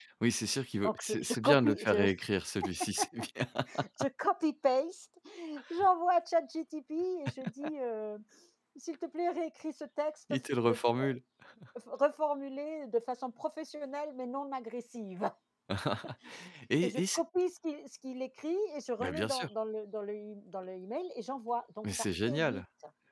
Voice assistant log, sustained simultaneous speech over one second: present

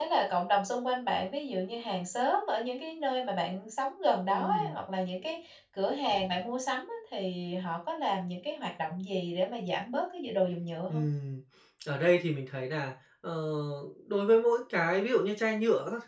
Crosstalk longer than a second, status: none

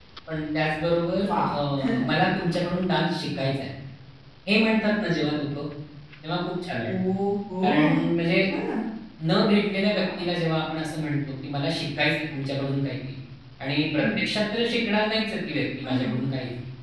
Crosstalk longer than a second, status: none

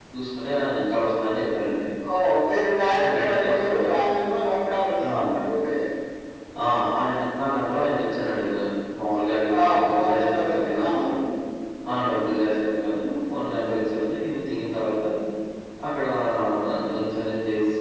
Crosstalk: present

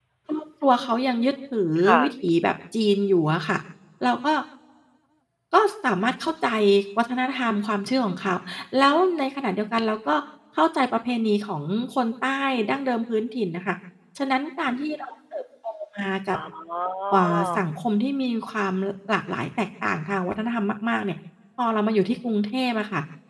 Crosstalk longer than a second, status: none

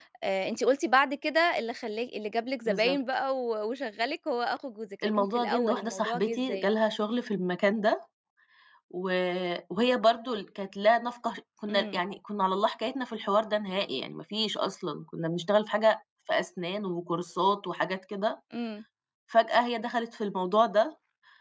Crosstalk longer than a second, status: present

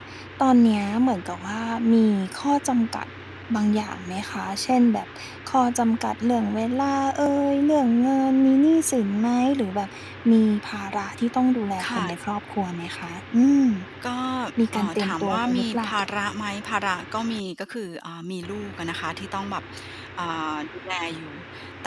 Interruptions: present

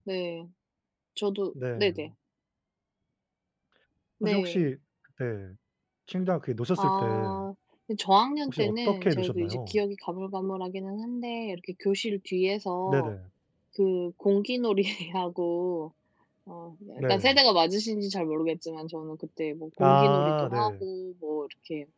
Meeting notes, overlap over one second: present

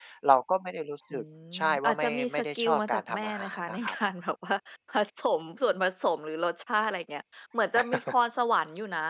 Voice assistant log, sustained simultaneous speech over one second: present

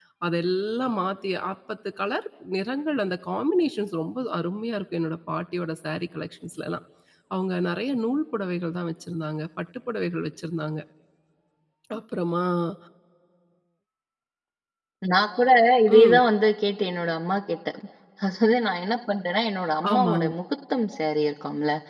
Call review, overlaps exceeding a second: none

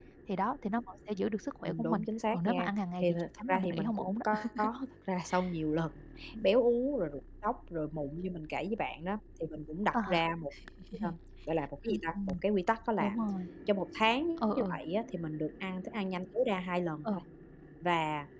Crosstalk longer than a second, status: present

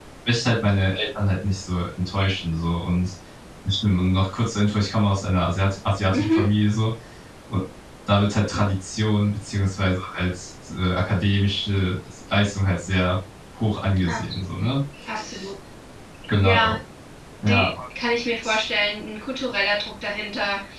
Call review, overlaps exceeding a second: none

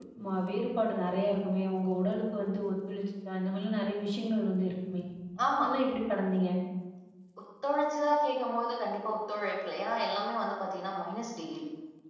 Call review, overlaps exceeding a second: none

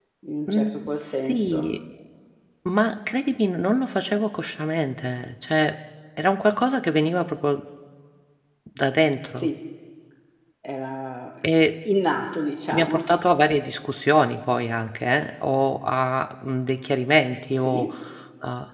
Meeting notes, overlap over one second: present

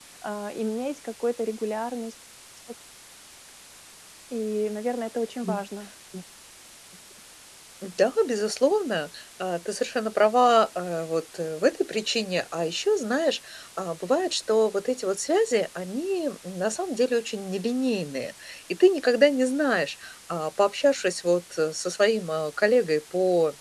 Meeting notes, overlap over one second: none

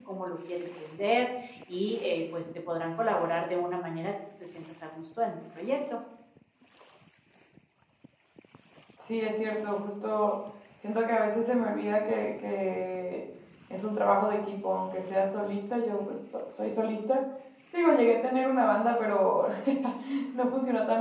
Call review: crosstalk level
none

